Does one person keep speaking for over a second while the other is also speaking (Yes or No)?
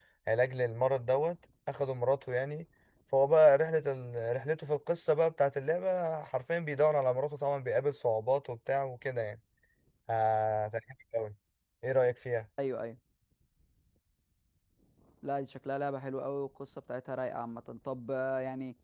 No